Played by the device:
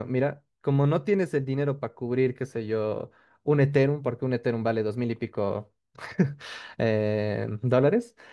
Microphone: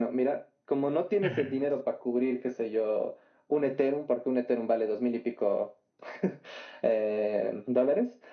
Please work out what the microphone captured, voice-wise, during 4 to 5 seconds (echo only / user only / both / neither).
echo only